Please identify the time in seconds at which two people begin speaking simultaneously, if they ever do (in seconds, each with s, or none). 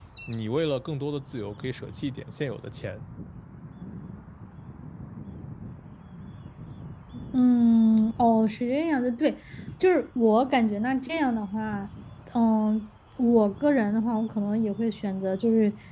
none